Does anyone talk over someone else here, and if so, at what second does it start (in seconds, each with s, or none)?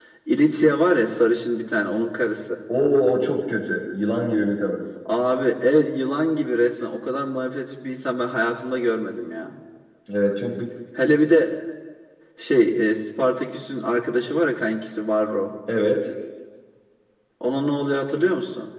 none